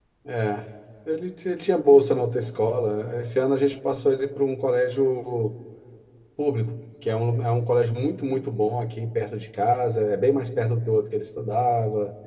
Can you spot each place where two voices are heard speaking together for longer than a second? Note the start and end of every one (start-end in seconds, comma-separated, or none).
none